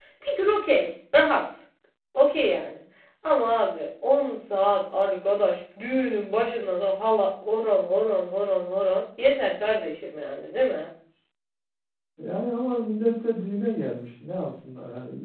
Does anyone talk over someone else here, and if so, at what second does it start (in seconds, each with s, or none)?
none